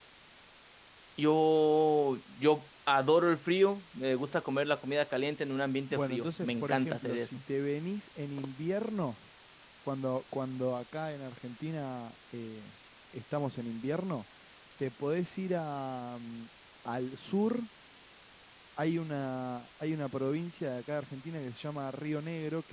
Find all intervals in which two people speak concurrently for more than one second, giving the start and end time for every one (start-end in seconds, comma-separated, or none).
5.9-7.4